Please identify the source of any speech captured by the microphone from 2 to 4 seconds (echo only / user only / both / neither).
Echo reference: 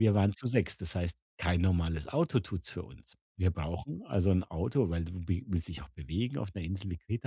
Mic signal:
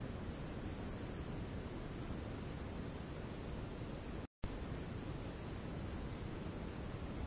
neither